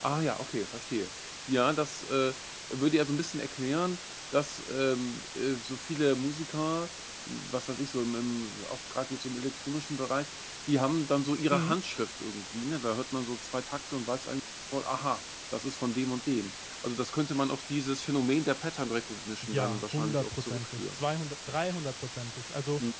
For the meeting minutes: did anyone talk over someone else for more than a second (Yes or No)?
Yes